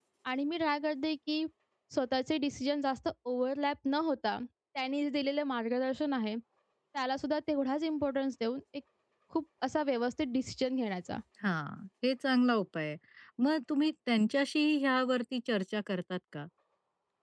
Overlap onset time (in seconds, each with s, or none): none